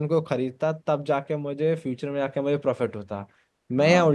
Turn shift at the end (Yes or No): No